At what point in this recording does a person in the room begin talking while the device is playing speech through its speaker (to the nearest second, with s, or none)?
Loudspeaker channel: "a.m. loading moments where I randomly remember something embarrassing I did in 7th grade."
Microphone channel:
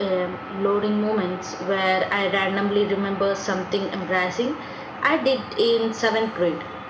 none